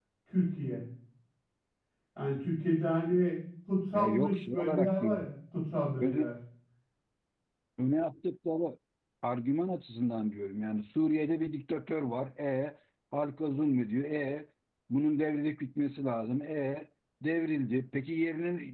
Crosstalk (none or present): present